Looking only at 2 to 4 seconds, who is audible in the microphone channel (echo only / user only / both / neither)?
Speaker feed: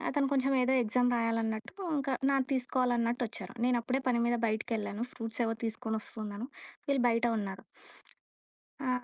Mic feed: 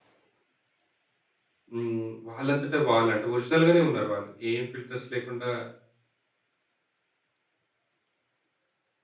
user only